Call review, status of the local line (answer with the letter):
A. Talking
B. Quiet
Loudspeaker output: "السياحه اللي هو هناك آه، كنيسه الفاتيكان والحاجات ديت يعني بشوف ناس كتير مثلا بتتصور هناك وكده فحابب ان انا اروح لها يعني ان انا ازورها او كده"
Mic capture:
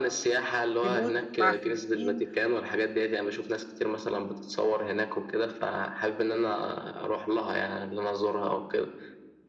A